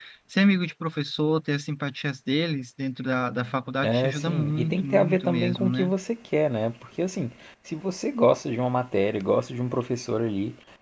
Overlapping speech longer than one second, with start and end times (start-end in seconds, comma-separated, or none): 3.8-5.9